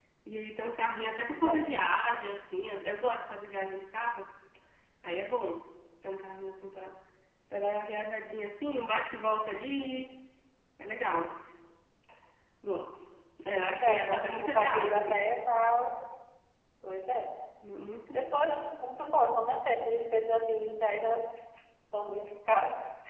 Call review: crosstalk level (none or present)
present